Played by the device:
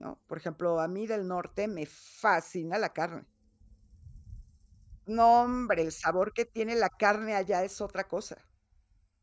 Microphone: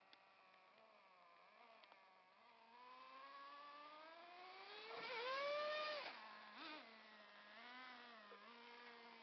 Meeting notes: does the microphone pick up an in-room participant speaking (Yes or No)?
No